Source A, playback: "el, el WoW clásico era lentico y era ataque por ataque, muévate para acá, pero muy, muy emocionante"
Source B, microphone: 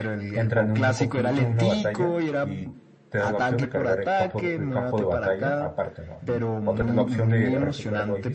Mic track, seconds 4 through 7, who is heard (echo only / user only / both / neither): both